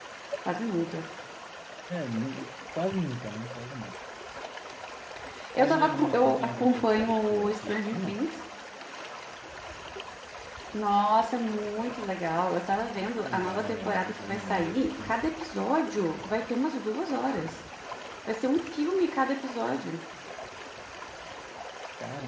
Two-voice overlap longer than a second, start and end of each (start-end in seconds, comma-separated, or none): 5.5-8.2, 13.0-14.8